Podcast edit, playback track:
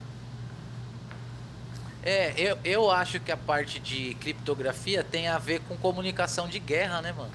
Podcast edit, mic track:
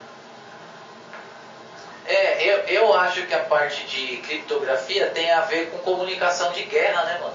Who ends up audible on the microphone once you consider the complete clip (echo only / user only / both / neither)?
echo only